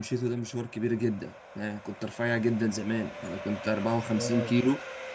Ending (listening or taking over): listening